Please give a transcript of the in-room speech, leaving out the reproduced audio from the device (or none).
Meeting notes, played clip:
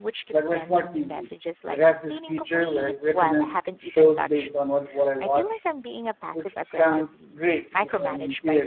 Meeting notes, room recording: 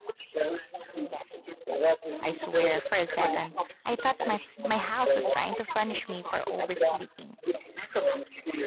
I swear, for a second, I thought my, s- my house was trying to punish me for oversleeping.